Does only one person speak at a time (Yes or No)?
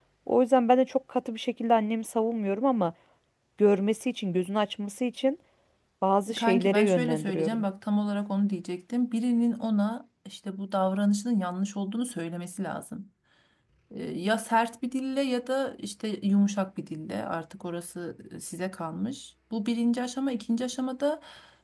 No